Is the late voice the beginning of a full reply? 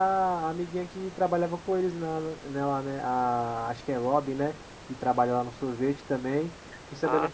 No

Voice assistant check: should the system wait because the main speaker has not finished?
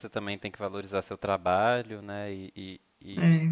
Yes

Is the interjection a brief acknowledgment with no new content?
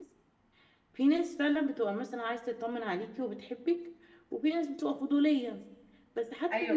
Yes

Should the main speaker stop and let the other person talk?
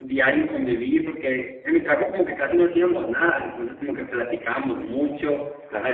No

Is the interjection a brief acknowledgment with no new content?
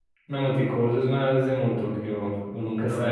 No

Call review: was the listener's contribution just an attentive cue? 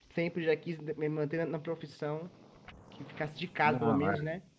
Yes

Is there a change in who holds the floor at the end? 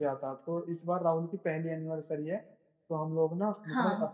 Yes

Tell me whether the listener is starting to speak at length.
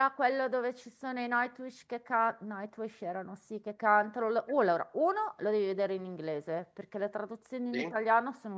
No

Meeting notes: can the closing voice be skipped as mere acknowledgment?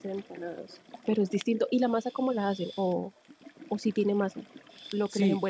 No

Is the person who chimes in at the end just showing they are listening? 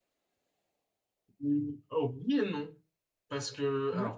Yes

